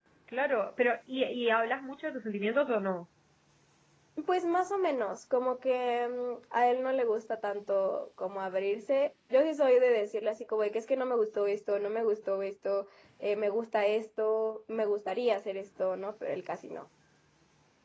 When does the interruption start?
none

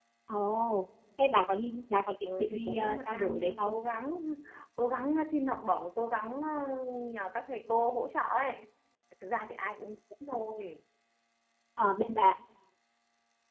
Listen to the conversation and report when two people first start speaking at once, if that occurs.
2.2 s

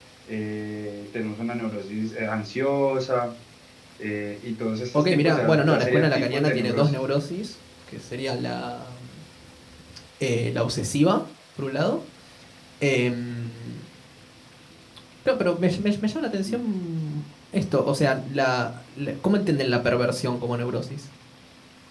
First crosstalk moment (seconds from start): 4.9 s

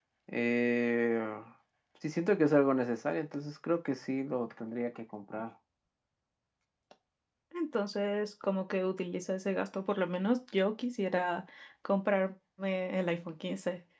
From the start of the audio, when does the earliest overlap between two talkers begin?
none

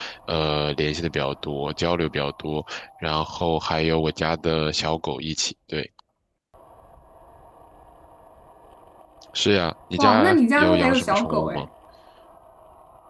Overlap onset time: 10.0 s

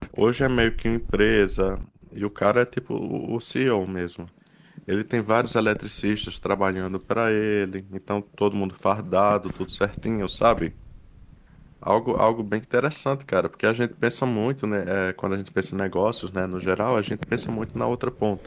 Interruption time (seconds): none

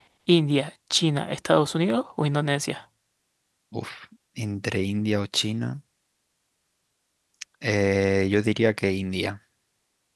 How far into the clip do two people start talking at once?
none

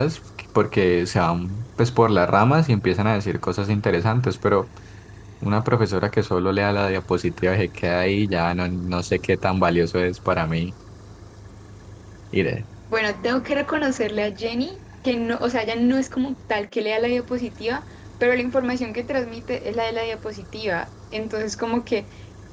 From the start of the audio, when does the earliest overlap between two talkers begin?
none

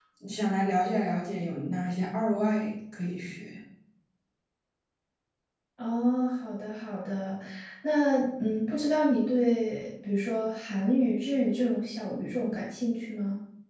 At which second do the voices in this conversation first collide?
none

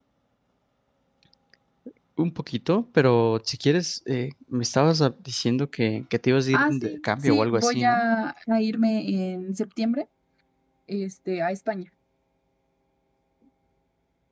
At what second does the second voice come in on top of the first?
6.5 s

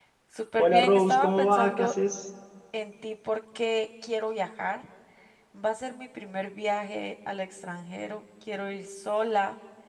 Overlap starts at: 0.6 s

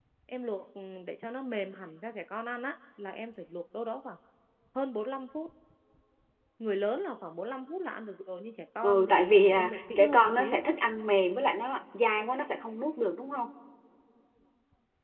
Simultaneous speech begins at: 8.8 s

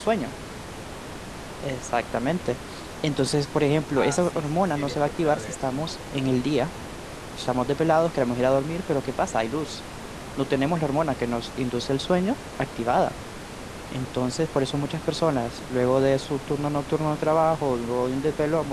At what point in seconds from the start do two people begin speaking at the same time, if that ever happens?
4.0 s

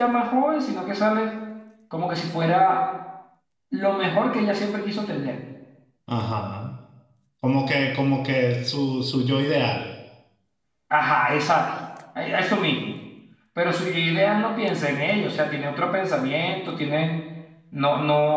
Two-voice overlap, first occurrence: none

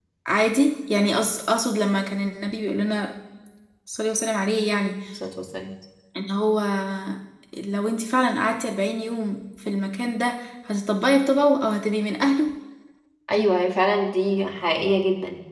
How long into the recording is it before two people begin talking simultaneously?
none

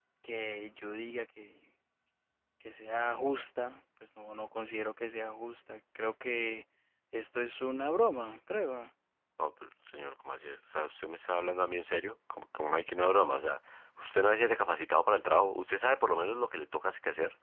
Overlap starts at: none

